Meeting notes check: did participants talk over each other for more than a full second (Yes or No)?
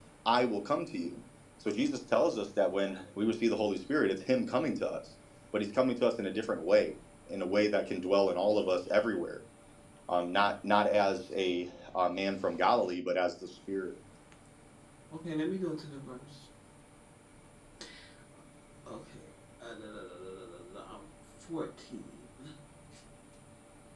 No